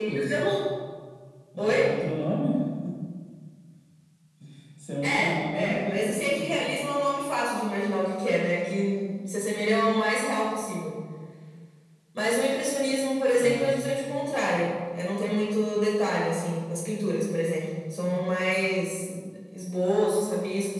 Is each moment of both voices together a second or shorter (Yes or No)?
No